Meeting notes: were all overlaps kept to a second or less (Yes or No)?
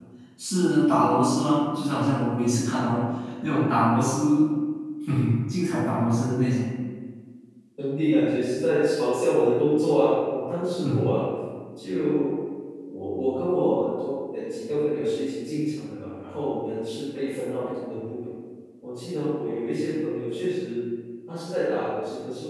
Yes